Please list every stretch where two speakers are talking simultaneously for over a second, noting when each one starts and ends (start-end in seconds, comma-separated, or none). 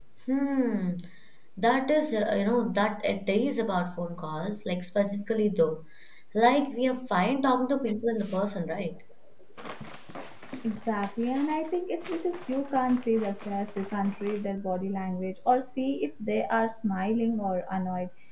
none